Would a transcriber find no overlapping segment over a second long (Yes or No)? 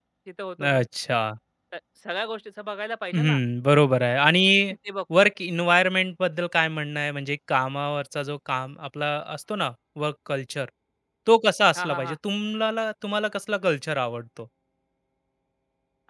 Yes